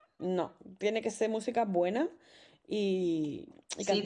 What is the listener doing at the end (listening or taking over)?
taking over